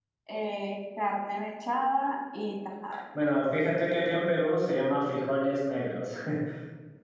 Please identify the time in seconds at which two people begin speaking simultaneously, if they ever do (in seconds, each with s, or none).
none